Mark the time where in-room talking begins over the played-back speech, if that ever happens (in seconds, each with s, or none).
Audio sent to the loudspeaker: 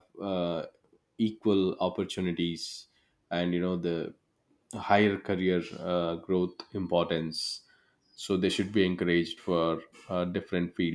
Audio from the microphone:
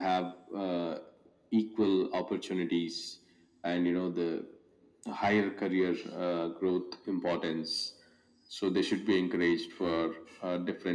none